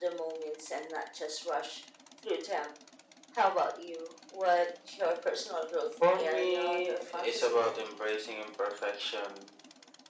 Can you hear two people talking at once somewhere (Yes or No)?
Yes